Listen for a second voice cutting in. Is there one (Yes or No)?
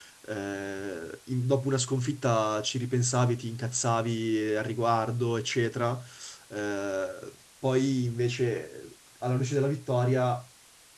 No